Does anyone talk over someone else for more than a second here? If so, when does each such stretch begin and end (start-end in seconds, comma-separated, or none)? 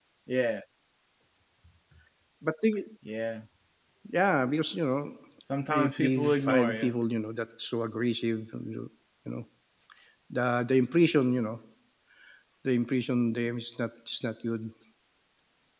5.7-6.9